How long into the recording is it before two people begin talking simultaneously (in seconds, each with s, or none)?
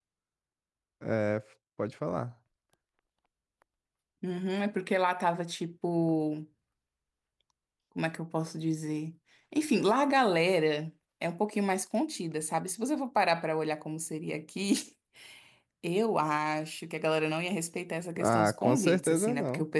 18.2 s